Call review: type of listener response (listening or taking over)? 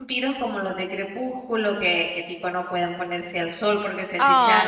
taking over